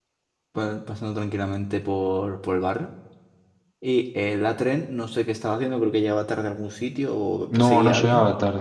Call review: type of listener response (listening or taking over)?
taking over